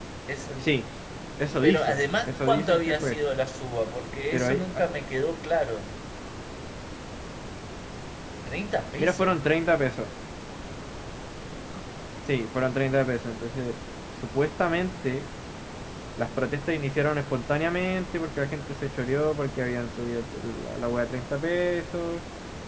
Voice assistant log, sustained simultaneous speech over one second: present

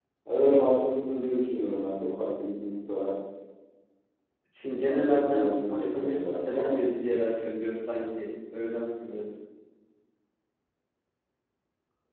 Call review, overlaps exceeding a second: present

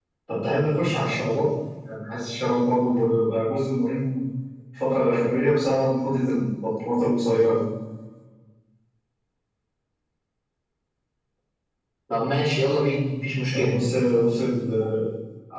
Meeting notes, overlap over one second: none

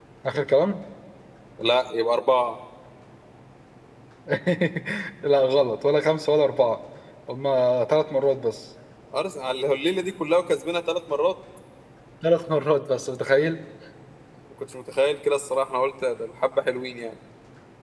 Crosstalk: none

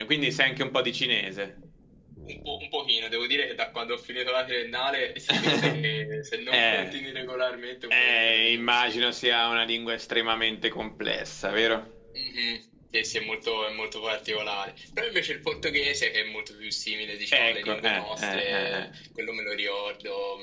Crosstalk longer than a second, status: present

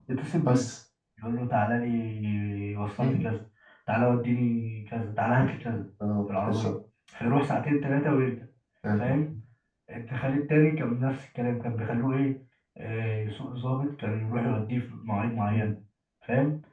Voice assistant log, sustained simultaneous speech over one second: none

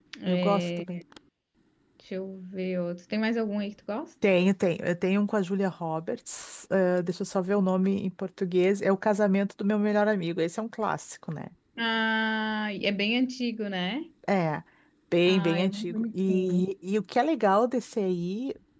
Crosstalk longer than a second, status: present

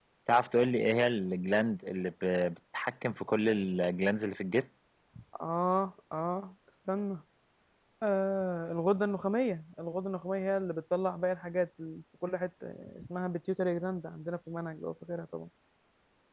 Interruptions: none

